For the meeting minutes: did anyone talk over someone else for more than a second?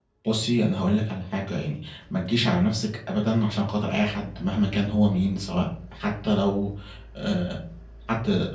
No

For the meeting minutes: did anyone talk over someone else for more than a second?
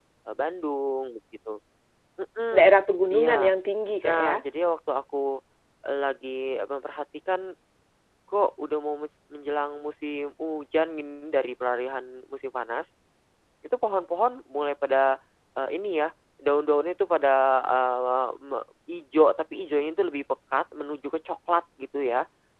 No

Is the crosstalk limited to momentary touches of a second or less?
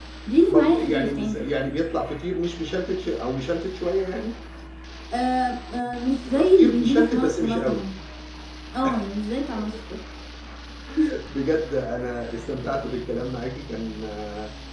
No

